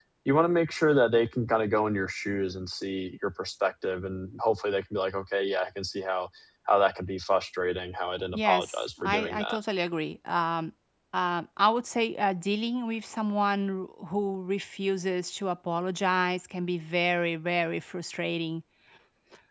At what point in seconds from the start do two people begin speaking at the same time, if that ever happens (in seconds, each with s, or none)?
8.3 s